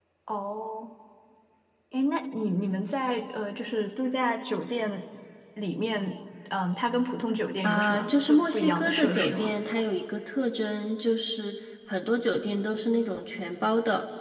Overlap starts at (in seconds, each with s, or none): 7.6 s